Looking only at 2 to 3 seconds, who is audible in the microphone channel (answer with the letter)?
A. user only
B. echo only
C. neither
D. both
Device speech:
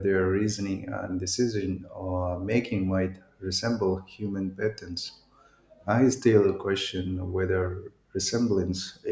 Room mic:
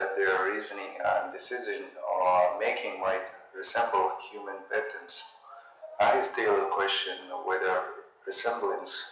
B